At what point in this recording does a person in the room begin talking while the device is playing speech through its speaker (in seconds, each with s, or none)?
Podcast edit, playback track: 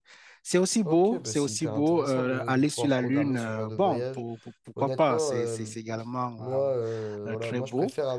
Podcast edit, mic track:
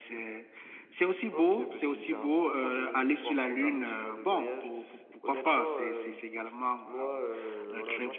none